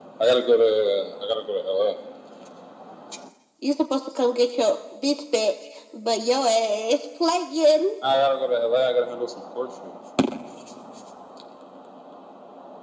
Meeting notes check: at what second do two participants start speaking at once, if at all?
none

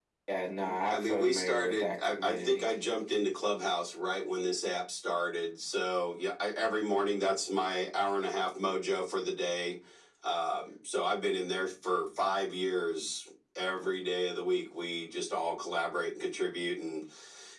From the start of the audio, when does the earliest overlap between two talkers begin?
0.9 s

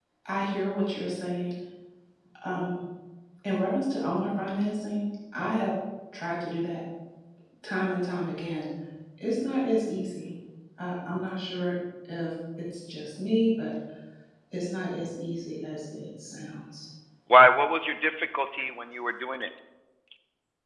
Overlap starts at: none

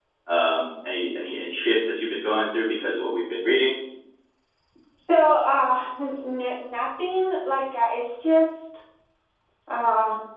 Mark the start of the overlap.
none

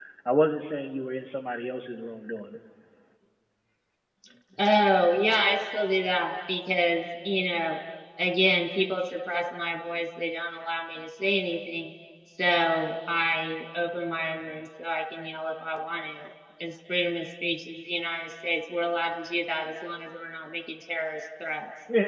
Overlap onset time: none

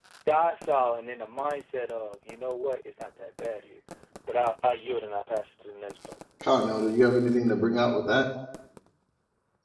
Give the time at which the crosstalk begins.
none

